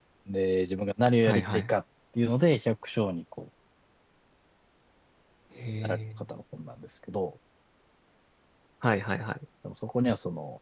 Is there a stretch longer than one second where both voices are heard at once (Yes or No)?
No